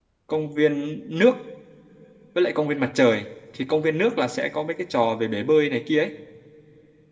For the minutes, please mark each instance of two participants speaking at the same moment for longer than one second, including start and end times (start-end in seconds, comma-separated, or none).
none